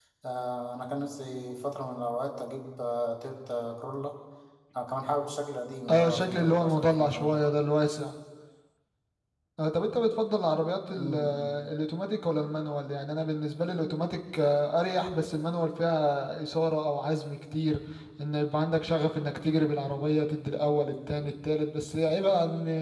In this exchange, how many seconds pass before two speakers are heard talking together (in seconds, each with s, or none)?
5.9 s